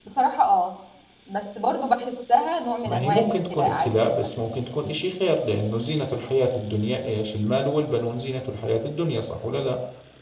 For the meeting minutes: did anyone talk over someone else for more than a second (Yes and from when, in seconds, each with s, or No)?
Yes, from 2.8 s